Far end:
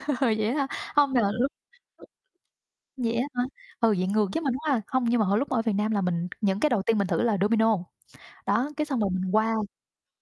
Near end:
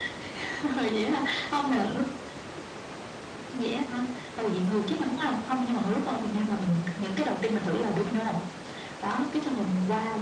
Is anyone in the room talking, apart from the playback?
No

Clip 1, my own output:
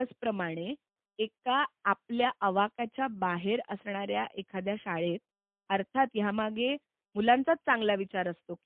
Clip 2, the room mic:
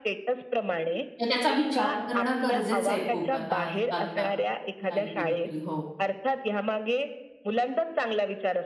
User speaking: Yes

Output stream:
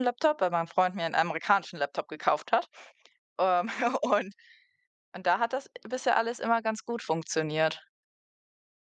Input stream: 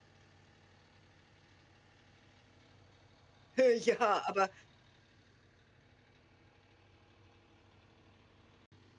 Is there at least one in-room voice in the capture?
Yes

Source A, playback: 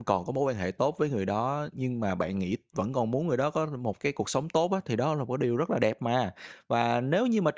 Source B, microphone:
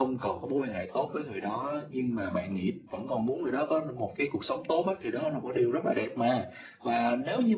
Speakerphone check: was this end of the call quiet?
Yes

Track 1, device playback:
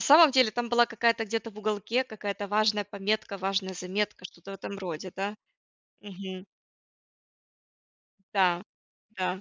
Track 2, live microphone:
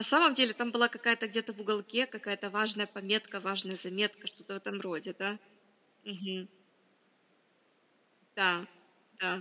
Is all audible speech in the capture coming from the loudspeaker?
Yes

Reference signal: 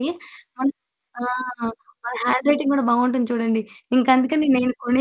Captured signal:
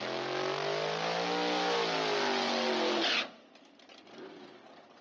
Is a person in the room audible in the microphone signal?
No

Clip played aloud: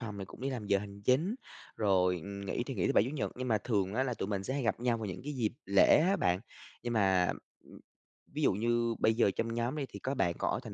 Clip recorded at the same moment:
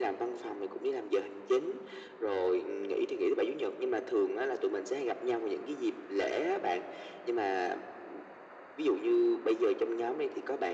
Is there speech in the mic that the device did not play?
No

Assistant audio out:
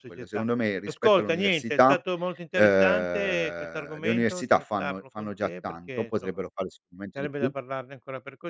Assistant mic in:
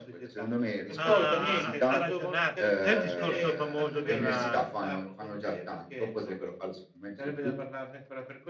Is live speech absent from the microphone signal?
No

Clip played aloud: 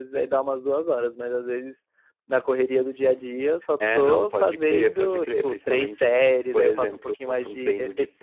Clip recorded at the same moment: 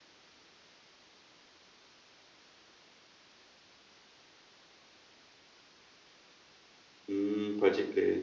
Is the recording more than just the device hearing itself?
Yes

